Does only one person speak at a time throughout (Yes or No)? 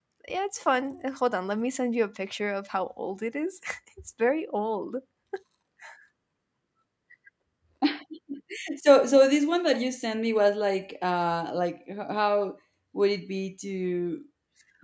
Yes